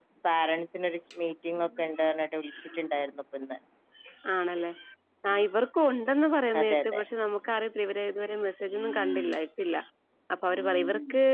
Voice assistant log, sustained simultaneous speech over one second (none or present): none